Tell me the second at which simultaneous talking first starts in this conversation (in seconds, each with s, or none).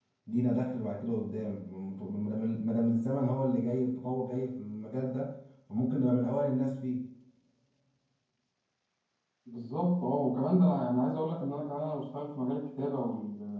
none